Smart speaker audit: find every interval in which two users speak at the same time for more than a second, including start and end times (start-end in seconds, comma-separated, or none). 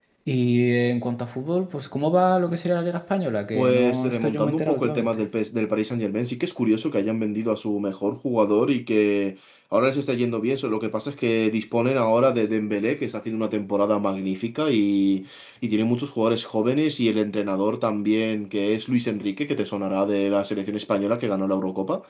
3.5-5.2